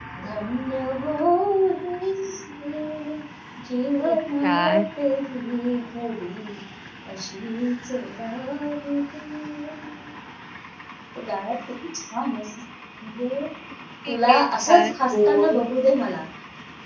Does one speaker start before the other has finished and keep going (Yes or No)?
Yes